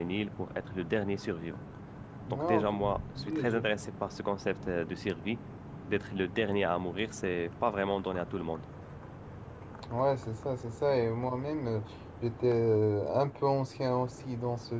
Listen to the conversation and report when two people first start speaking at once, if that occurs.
2.3 s

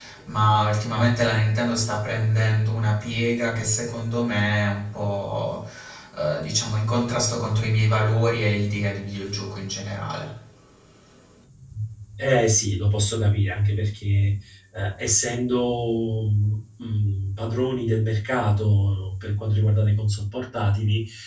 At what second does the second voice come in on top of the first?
none

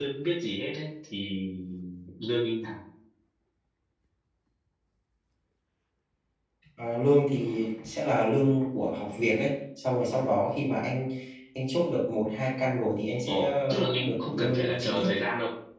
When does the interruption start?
13.3 s

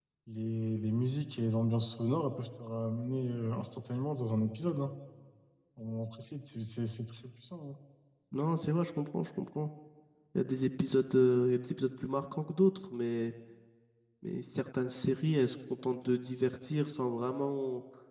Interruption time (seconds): none

